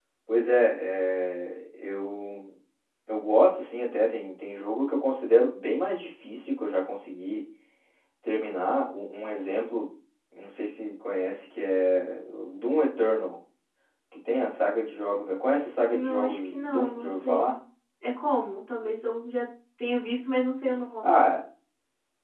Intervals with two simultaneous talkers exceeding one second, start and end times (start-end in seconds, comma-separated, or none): 15.9-17.6